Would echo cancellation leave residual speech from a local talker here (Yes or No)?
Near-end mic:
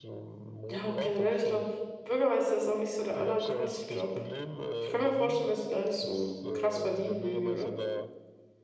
Yes